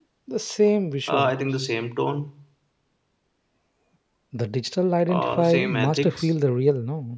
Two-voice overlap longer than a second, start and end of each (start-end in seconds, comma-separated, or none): 5.1-6.3